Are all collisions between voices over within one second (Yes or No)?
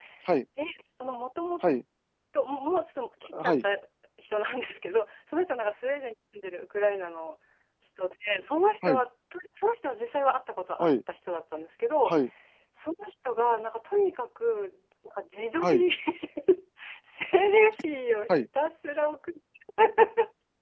Yes